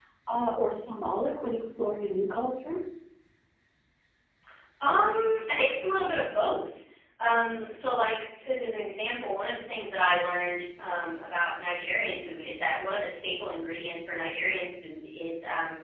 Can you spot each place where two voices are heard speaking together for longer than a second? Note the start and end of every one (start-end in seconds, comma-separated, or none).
none